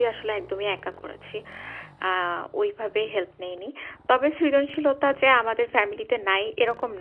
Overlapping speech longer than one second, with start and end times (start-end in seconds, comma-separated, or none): none